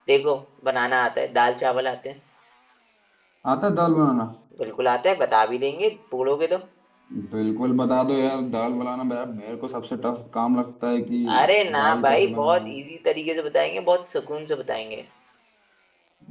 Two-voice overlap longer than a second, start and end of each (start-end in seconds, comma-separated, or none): 11.4-12.8